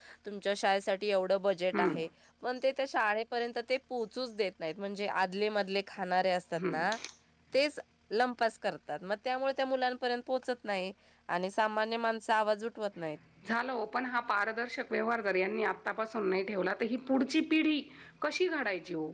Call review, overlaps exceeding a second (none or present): none